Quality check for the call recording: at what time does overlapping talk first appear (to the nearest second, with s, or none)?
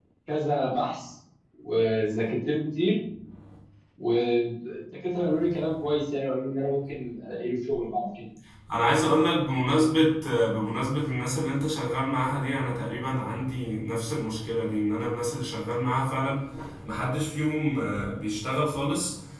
none